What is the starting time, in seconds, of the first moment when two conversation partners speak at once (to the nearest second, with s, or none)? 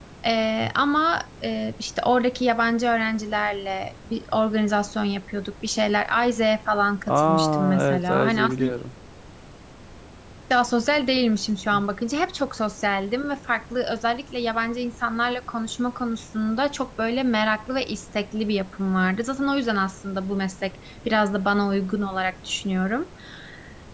7 s